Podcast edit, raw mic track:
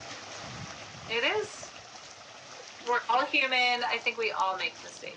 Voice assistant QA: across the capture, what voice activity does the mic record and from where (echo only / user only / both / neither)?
echo only